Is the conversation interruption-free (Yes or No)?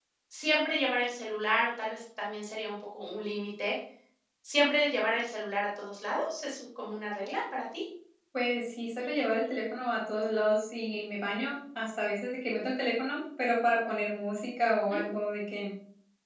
Yes